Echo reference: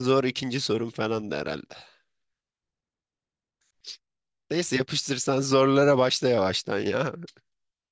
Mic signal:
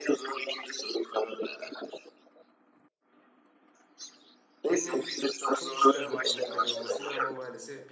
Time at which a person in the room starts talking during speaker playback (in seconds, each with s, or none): 4.7 s